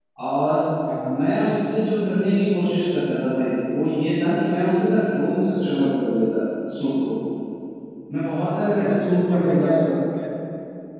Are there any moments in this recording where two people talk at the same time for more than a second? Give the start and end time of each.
8.7-9.9

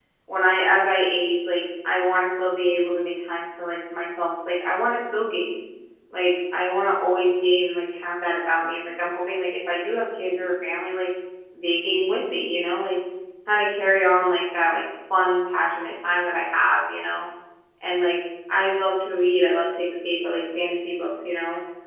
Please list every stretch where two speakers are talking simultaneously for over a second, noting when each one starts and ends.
none

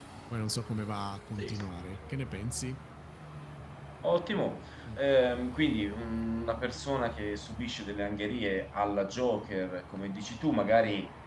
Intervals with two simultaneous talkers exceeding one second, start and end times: none

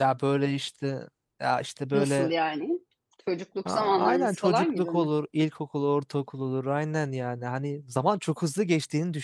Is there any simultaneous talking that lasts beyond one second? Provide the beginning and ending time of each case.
3.6-5.1

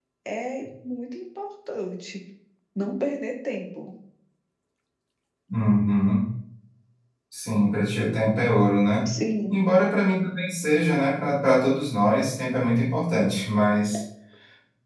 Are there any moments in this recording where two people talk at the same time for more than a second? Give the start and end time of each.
none

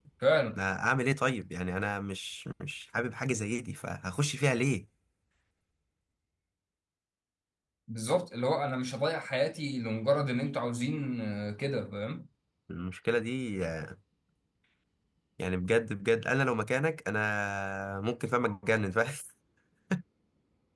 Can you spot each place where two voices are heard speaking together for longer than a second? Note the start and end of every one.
none

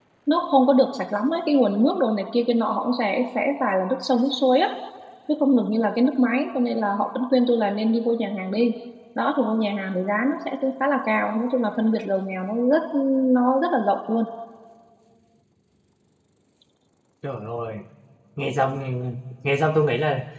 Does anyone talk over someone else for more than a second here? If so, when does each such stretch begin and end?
none

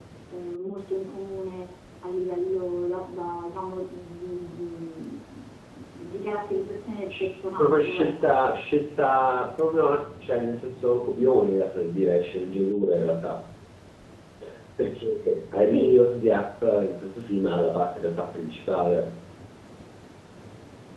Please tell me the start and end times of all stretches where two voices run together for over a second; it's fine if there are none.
7.2-8.4

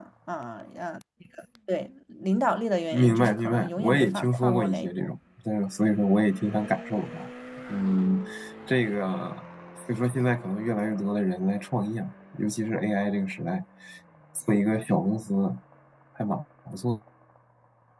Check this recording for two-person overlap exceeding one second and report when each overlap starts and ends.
2.9-5.1

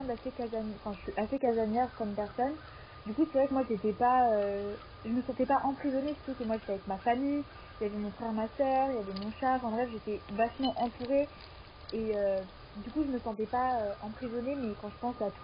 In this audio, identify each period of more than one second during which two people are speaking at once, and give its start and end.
none

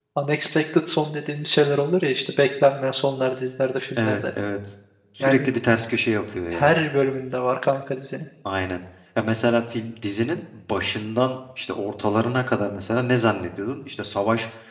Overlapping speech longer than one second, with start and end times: none

